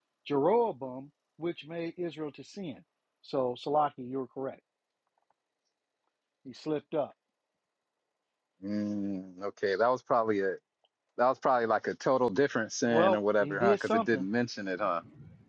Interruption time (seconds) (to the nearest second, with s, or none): 13 s